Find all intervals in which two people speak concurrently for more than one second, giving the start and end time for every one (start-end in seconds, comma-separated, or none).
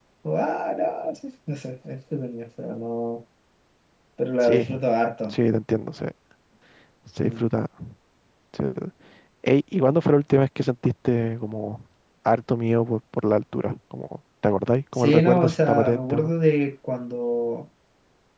14.9-16.3